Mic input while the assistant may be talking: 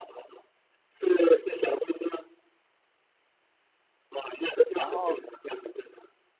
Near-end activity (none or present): present